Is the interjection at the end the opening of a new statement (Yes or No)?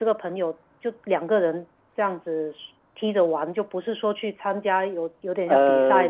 No